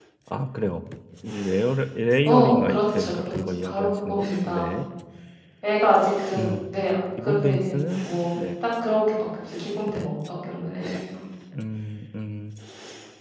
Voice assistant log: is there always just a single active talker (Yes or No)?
No